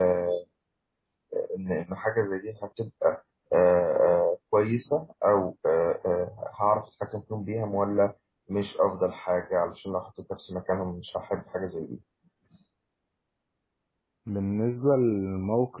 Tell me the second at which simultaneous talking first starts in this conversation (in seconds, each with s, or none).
none